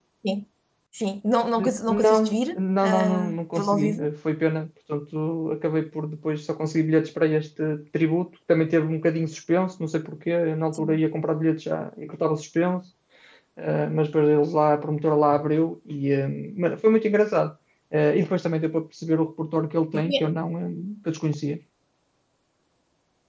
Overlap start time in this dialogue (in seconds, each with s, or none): 1.6 s